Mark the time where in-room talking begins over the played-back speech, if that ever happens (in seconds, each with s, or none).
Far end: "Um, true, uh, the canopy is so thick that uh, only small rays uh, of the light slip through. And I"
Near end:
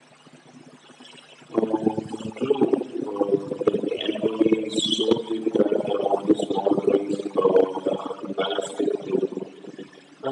none